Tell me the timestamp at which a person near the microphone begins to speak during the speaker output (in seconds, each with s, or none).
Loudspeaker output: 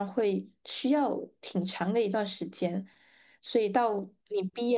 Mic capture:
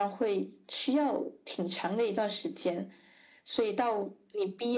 none